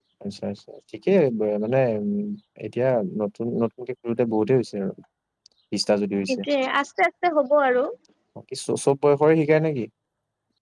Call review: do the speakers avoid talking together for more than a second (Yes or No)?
Yes